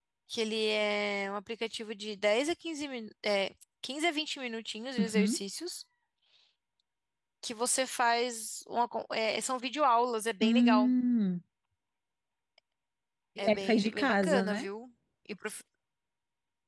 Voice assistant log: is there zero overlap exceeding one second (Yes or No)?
No